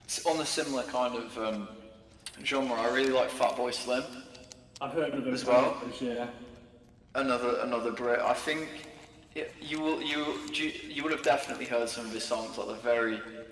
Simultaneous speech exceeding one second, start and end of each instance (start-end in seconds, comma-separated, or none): none